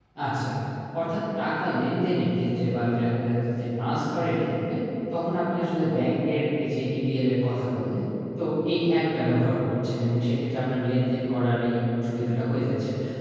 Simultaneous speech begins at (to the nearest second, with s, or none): none